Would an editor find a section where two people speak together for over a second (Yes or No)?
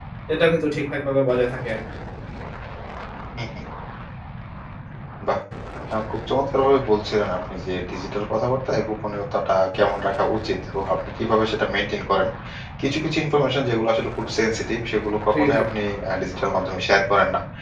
No